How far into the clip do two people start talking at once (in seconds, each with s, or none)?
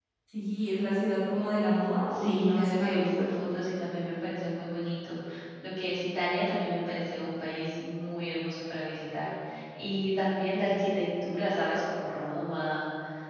2.1 s